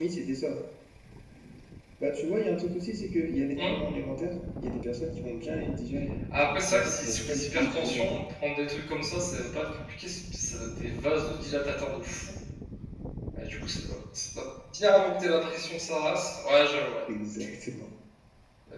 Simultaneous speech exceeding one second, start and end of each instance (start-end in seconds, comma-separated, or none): 6.7-8.2